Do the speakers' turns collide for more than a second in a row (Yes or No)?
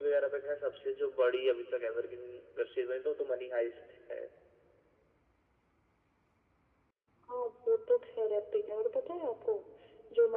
No